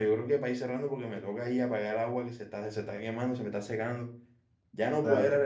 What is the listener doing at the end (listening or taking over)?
listening